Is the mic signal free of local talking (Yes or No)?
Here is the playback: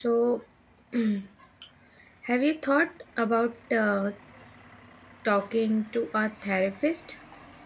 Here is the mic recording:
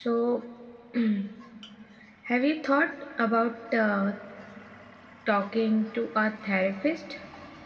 Yes